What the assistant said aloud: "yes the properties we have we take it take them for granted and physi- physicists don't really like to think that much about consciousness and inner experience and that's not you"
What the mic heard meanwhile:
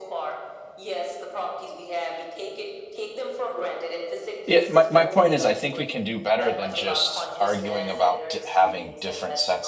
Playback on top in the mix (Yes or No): No